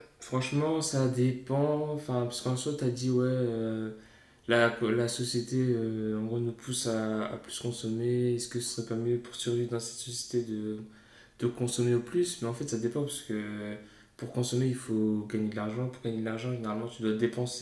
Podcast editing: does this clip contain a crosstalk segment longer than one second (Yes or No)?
No